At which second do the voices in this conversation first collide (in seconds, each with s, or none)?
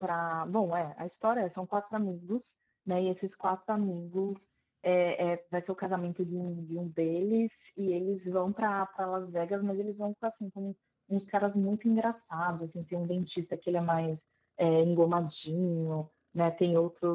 none